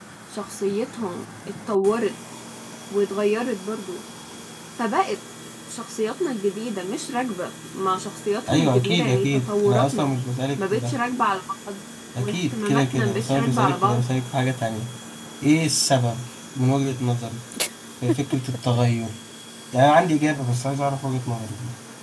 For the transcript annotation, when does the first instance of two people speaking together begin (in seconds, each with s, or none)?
8.5 s